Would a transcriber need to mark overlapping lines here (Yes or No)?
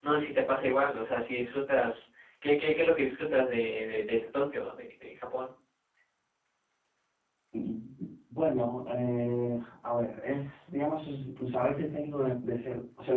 No